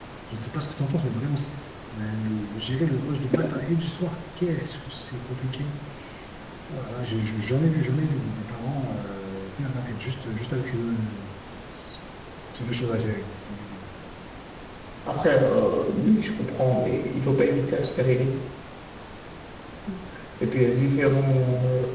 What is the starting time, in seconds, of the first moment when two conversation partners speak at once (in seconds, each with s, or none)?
none